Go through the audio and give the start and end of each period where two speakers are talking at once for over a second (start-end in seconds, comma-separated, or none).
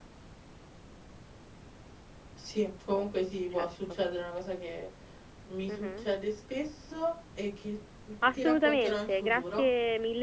8.2-9.7